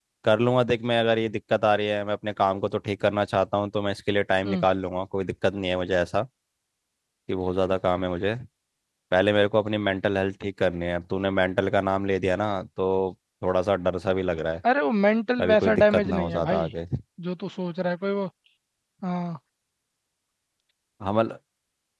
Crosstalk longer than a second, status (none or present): present